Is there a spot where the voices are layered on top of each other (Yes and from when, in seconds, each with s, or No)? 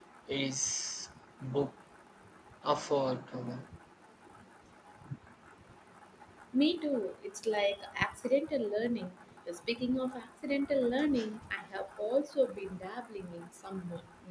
No